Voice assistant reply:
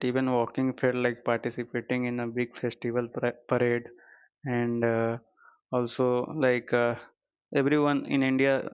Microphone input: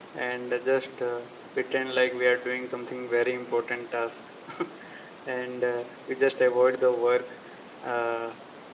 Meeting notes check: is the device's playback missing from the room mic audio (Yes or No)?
Yes